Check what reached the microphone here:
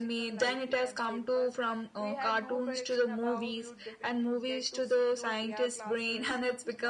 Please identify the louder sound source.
echo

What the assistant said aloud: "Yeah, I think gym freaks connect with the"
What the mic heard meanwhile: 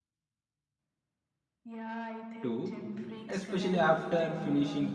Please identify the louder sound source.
user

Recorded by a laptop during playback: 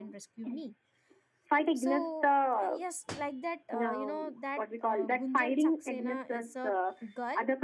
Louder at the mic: echo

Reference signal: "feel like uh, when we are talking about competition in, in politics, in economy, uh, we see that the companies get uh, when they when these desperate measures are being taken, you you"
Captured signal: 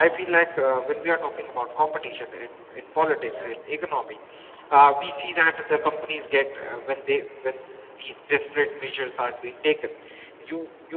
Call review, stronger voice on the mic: echo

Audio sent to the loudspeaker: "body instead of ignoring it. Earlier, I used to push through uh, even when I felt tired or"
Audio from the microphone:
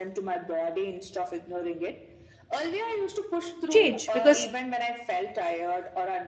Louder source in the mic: user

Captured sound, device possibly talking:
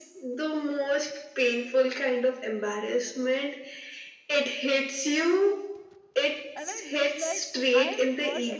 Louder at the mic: echo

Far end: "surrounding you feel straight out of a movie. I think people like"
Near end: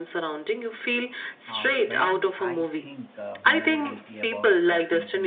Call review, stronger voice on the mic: echo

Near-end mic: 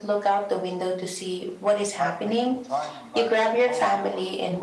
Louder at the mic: echo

